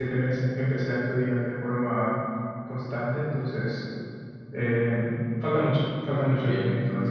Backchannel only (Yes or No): No